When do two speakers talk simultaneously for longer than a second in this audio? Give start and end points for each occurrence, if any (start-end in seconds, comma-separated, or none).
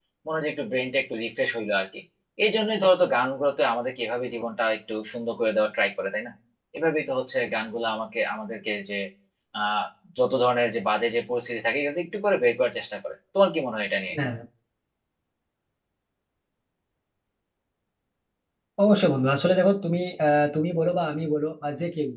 none